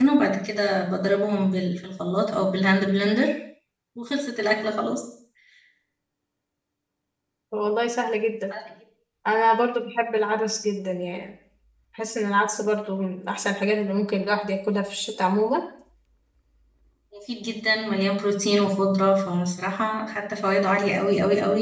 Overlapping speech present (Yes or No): No